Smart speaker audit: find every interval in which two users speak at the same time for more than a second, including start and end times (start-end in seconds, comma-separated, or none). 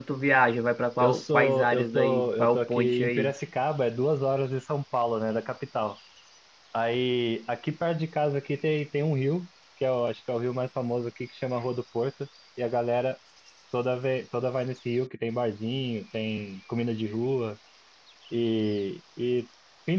1.0-3.3